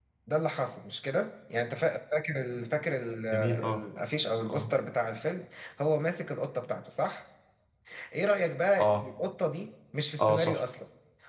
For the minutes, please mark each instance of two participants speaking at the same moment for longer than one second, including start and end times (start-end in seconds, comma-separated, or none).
none